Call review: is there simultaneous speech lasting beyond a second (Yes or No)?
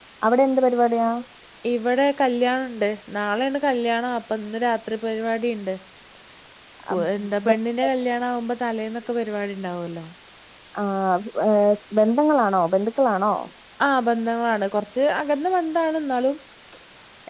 No